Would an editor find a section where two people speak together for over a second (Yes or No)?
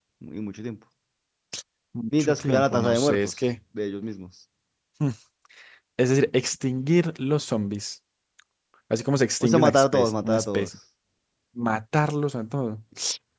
Yes